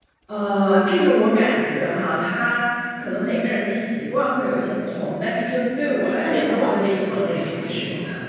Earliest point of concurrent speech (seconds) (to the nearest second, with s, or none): 6 s